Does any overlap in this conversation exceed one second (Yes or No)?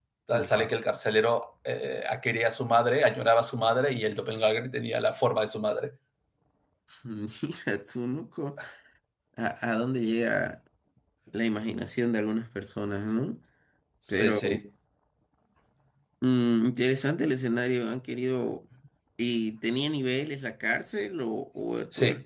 No